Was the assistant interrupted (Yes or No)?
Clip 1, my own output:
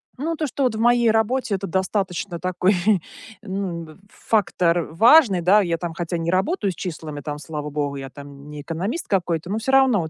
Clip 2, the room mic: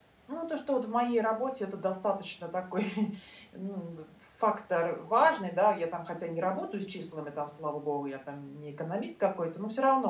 No